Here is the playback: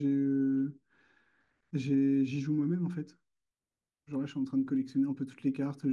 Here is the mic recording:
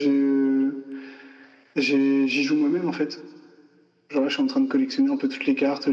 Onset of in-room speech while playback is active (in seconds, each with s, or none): none